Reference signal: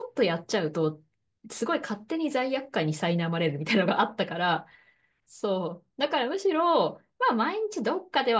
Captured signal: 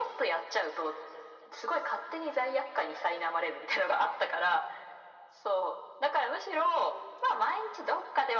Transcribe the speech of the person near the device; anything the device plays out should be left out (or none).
none